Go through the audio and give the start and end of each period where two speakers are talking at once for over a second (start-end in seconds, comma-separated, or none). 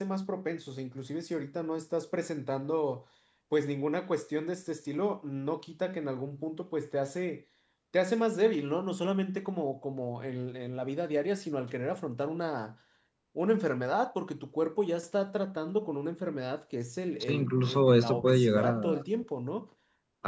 17.2-19.0